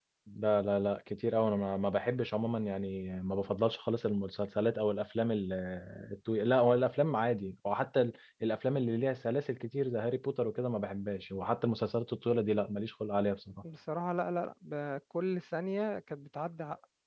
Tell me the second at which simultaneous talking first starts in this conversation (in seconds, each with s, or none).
none